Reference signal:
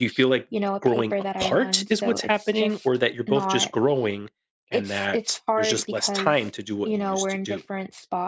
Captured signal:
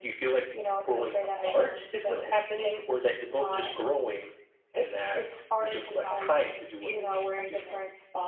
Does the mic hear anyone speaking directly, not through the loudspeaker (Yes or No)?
Yes